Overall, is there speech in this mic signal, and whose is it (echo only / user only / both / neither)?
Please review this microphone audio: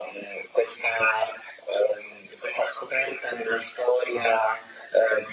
echo only